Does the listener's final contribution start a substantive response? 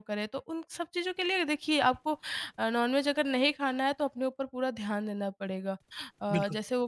No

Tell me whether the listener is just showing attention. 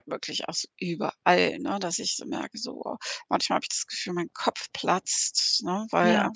Yes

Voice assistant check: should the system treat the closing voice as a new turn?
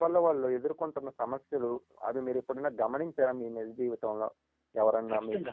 Yes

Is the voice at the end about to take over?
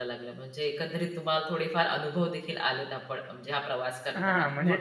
Yes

